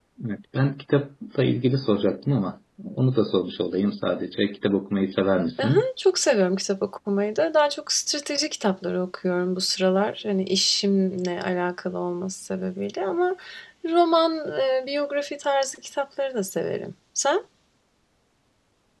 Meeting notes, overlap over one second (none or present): none